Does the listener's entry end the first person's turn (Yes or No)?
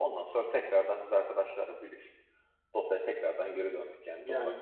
Yes